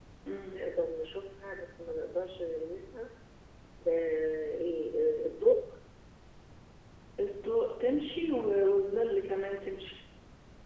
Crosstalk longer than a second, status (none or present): none